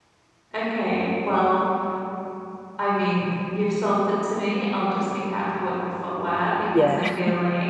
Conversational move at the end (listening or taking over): listening